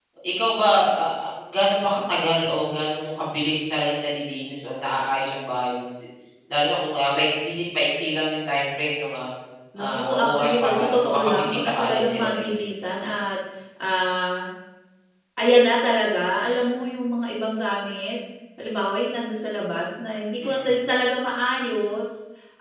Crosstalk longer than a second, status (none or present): present